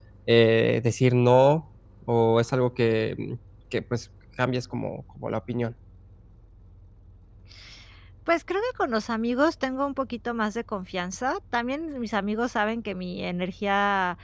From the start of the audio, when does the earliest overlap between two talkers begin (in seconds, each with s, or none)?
none